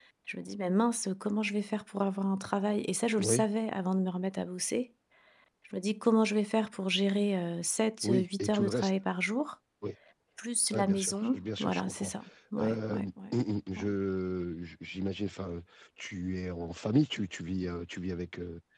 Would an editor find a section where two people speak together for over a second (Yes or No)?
Yes